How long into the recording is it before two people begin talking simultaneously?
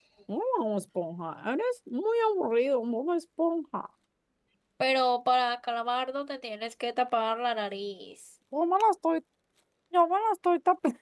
none

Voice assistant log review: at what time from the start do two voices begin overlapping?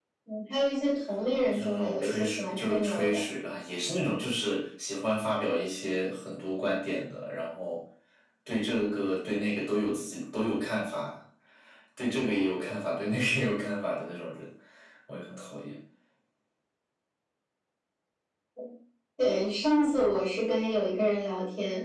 1.3 s

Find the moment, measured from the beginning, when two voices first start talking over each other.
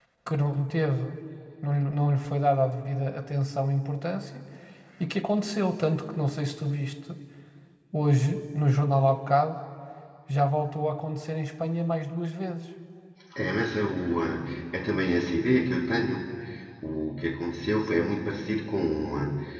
none

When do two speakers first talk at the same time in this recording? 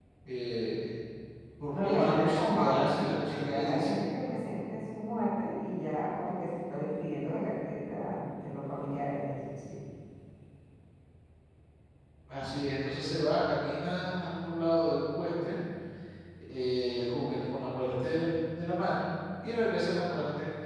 1.7 s

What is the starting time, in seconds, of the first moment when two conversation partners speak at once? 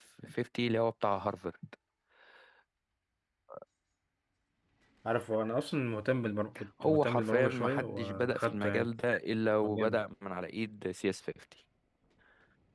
6.8 s

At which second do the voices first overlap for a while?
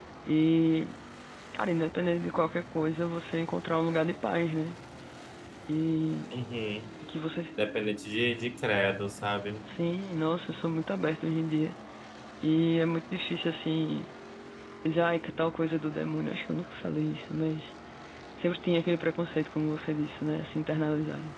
none

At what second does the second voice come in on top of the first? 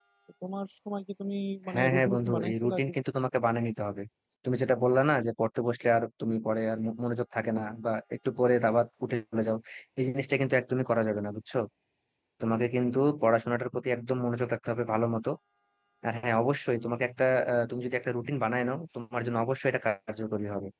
1.7 s

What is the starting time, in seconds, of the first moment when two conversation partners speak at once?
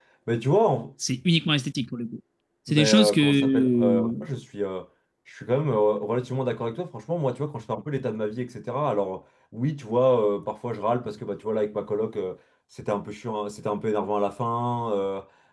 2.7 s

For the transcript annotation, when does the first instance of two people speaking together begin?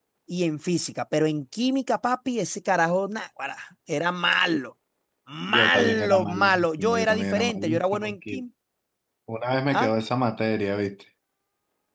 5.5 s

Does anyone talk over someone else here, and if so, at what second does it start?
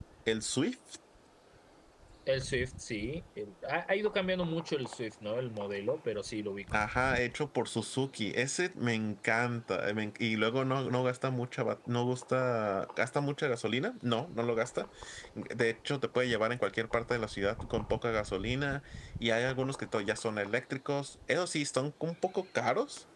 none

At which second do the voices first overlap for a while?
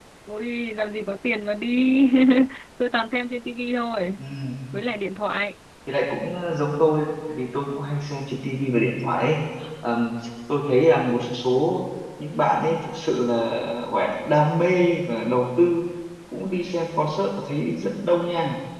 none

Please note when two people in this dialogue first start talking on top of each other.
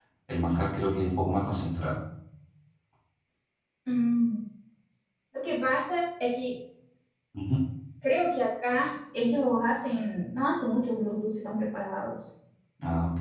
none

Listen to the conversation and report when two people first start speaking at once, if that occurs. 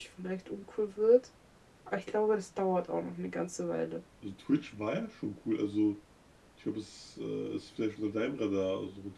none

